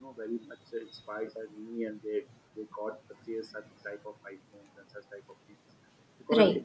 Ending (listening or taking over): listening